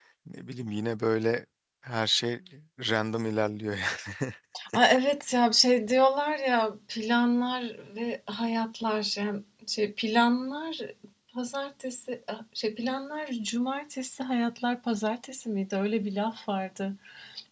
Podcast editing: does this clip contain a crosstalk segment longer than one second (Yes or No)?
No